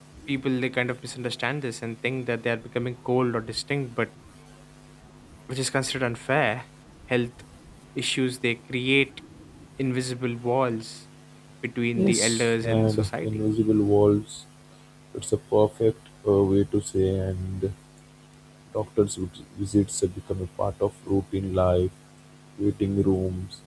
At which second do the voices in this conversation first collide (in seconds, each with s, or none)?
11.9 s